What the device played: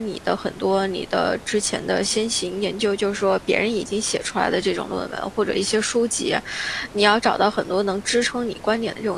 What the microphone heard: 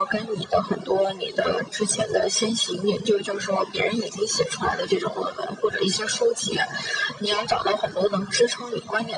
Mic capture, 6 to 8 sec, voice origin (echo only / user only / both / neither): echo only